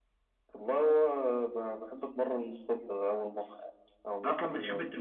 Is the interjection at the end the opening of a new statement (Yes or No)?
Yes